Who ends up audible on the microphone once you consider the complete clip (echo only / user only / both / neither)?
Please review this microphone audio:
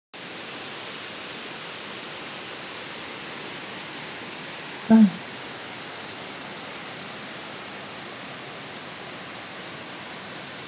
user only